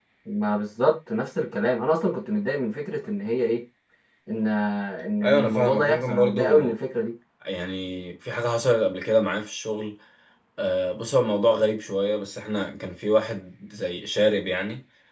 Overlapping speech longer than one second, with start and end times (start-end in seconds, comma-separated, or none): 5.2-6.8